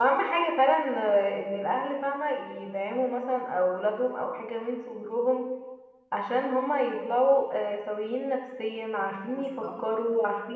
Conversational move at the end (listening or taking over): listening